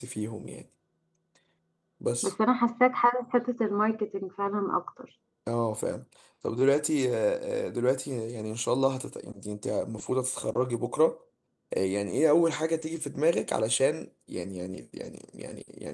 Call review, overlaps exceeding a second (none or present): none